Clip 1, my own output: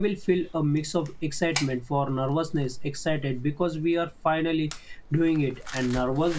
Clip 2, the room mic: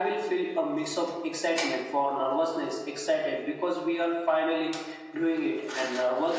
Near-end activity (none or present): none